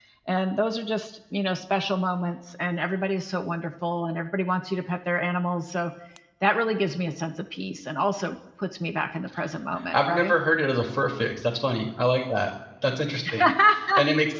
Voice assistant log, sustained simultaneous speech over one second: none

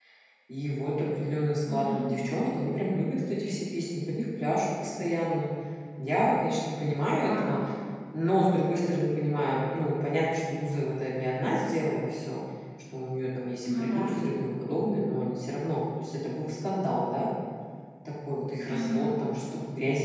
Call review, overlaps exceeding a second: none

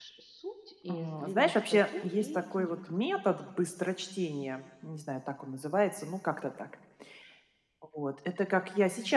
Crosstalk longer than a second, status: present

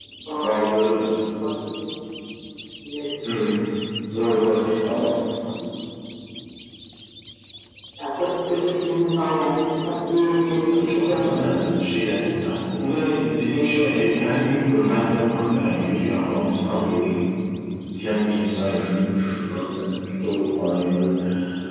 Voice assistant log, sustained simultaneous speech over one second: present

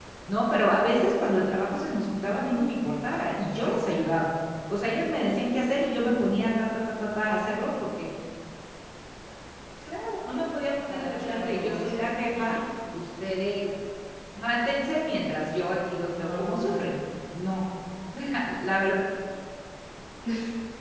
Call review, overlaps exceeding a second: present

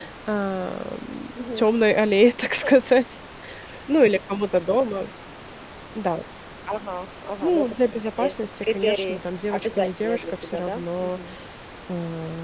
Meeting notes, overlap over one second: present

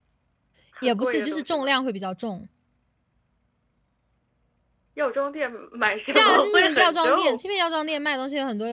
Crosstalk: present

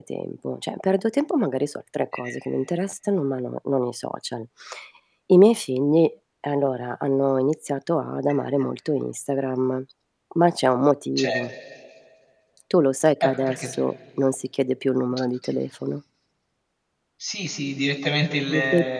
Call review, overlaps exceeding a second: none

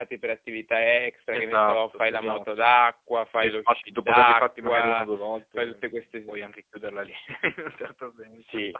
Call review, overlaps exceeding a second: present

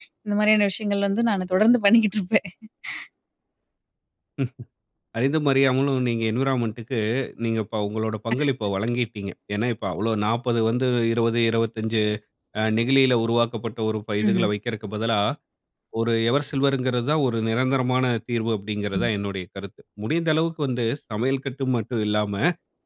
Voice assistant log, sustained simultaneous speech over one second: none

